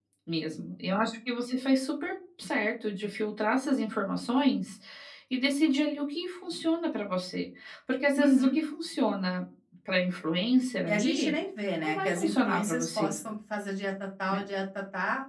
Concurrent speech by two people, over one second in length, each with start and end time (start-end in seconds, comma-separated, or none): 11.8-13.2